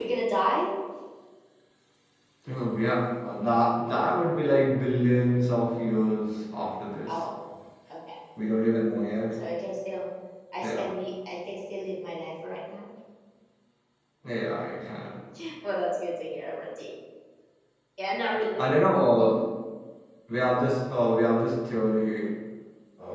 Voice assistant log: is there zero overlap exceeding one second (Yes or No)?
Yes